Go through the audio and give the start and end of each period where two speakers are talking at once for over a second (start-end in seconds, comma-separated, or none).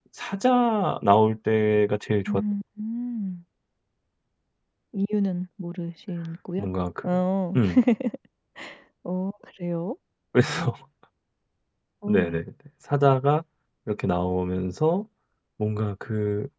none